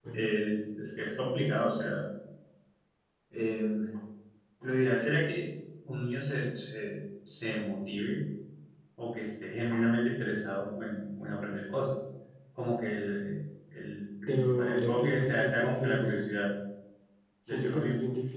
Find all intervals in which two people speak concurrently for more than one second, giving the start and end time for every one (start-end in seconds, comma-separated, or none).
14.3-16.2